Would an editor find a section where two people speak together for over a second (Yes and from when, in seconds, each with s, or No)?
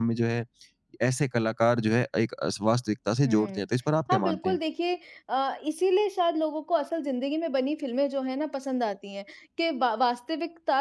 No